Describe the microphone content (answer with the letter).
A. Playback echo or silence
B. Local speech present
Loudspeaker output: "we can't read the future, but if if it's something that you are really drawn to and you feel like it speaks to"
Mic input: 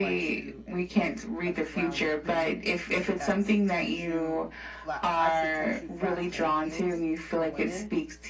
B